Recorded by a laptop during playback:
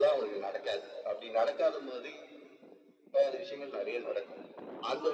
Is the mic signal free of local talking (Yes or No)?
Yes